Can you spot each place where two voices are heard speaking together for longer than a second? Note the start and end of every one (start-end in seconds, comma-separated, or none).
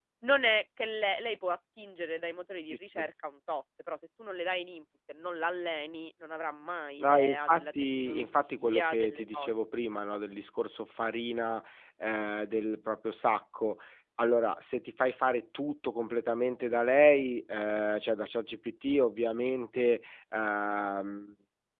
7.0-9.5